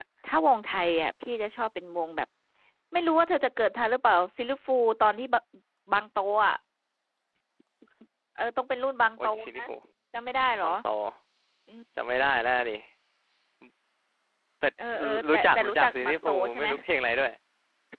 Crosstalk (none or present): present